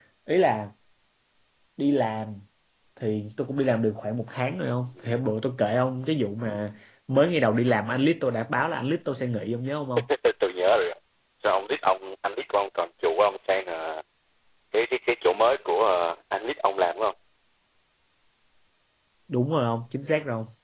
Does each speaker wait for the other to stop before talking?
Yes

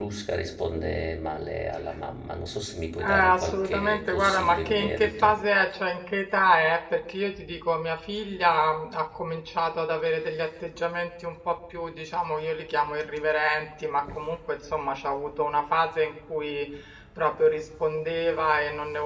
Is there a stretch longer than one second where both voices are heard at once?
Yes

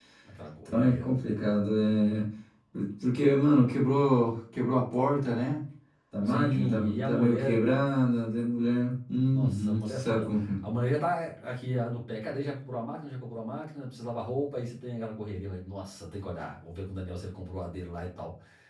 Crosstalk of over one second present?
Yes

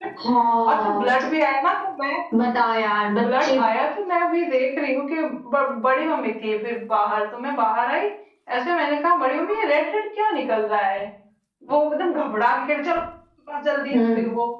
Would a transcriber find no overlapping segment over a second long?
Yes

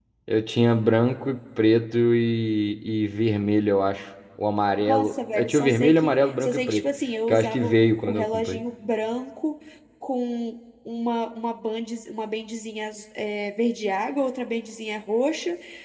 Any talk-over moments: Yes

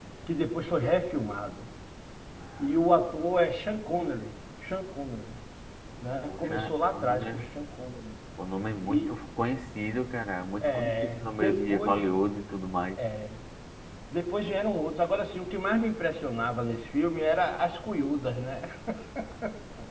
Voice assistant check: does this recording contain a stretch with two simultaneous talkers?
Yes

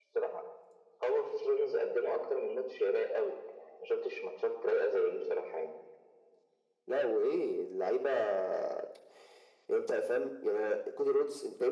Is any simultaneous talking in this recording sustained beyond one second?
No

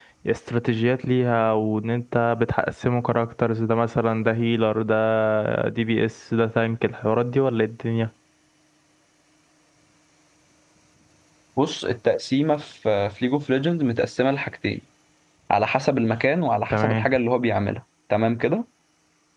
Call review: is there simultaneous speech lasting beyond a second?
No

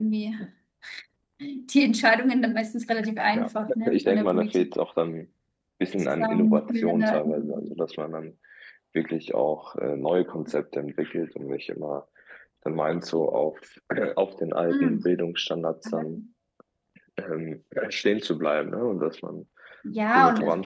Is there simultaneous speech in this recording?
Yes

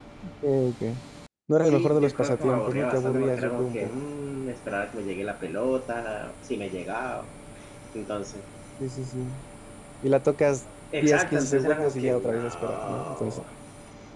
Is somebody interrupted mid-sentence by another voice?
Yes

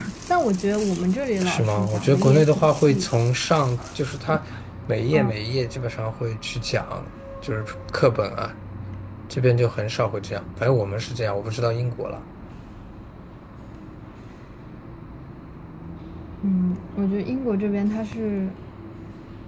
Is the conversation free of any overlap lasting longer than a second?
No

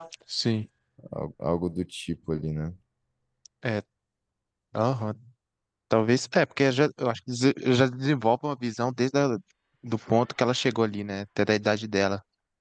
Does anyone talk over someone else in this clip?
No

